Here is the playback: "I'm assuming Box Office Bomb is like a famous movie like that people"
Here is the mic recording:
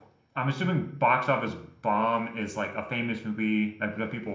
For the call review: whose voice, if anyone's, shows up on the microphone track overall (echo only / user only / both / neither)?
echo only